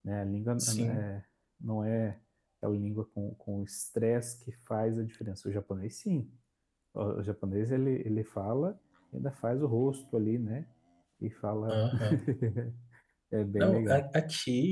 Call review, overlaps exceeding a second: none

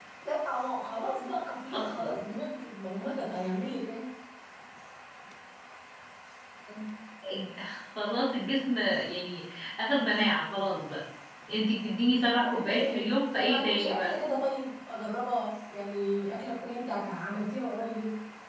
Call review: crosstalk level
present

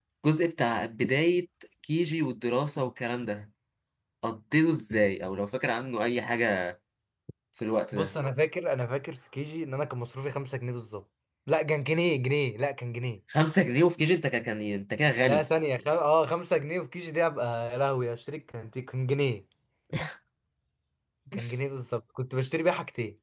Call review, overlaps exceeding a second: none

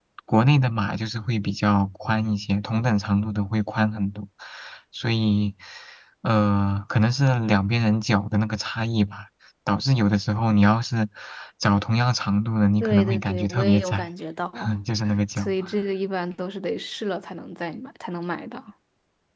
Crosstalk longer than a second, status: present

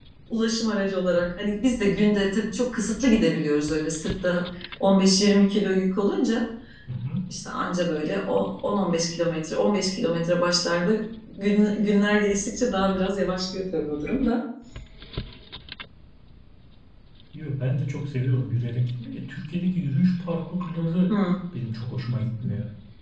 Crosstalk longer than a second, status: none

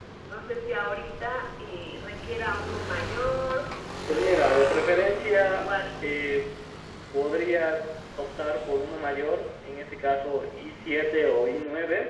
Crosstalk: present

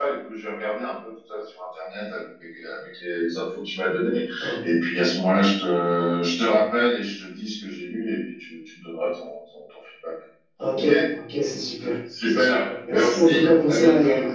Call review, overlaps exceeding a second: present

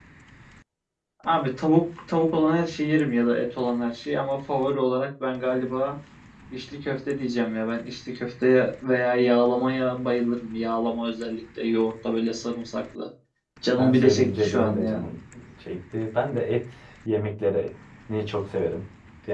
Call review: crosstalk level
present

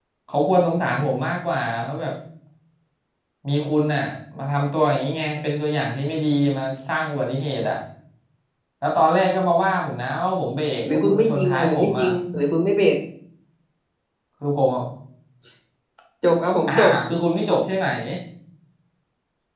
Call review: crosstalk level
present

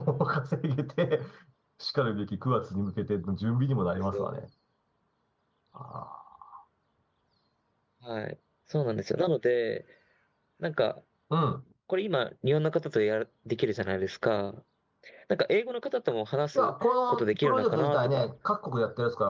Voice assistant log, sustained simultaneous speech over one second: present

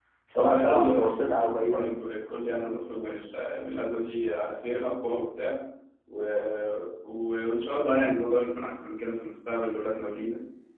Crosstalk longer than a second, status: present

